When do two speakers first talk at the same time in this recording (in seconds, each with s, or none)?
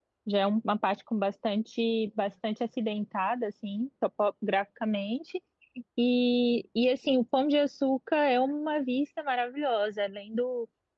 none